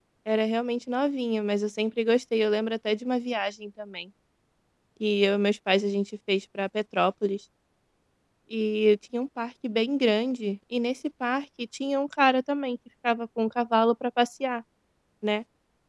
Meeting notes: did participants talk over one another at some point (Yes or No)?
No